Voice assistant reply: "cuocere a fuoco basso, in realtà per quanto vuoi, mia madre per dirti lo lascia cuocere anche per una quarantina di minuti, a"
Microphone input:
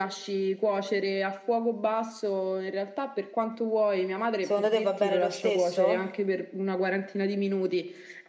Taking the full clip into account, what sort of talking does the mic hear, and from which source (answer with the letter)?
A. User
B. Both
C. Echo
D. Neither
B